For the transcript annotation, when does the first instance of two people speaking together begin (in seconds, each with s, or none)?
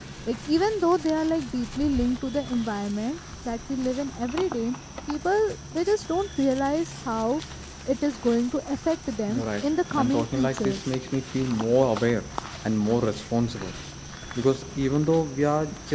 9.3 s